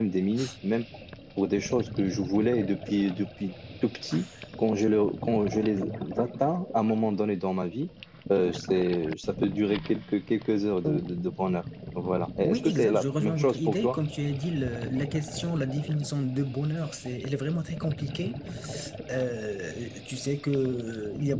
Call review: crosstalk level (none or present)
present